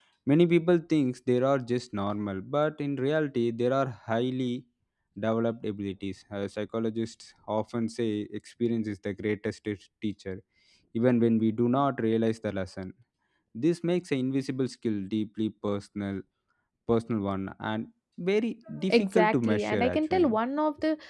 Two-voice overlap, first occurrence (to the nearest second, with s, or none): 19 s